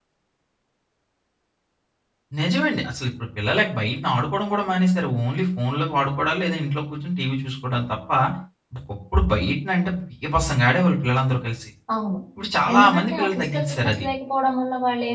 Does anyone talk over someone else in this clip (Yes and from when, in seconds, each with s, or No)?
Yes, from 12.7 s